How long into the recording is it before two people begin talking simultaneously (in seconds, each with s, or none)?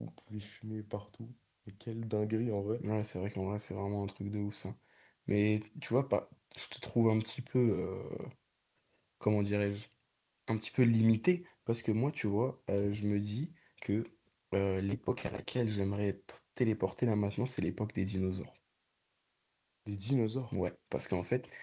none